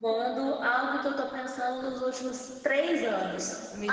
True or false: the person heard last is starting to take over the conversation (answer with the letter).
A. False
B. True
A